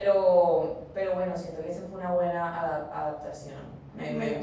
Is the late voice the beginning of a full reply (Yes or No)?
Yes